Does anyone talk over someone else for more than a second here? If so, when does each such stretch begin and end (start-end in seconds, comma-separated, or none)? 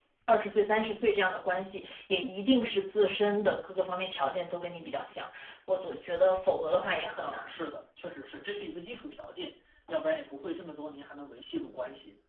none